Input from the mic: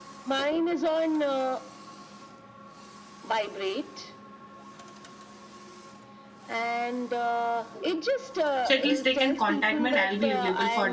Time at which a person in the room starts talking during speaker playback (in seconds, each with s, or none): 8.6 s